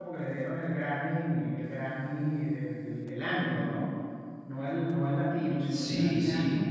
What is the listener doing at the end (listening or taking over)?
taking over